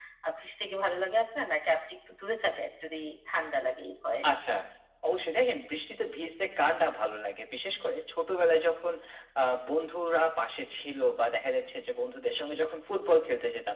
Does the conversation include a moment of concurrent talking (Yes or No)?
No